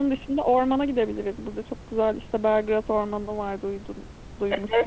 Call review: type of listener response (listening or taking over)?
taking over